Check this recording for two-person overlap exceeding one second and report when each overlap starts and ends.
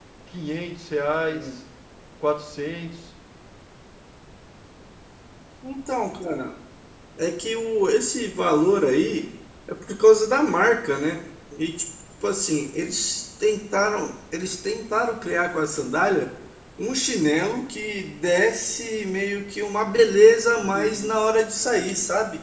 none

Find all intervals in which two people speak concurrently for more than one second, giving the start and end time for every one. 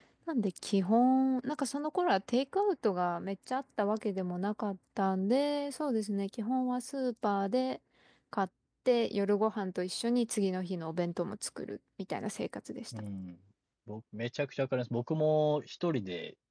none

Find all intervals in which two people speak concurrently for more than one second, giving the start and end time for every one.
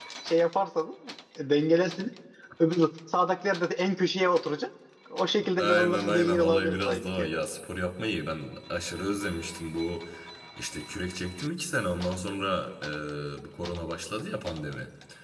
5.6-7.3

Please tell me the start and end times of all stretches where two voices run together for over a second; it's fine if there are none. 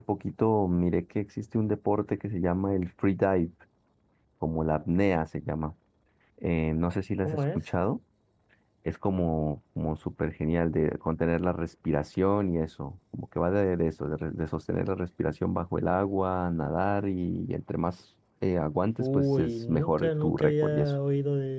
19.0-20.9

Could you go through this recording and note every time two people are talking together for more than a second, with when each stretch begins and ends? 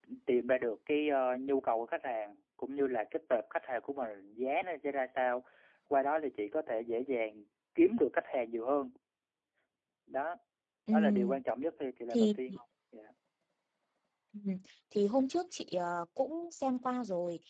none

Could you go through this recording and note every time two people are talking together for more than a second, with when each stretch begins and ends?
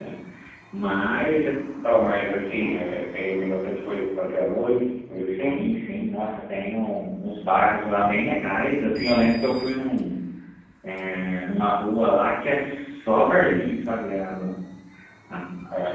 none

